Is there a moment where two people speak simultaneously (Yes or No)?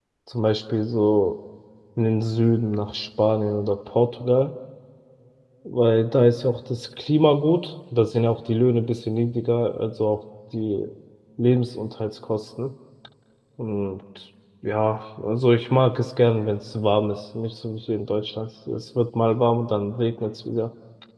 No